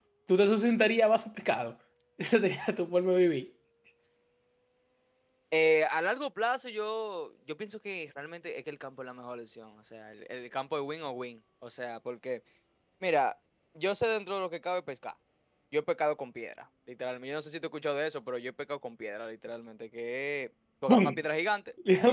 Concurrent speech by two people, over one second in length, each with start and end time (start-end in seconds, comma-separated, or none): none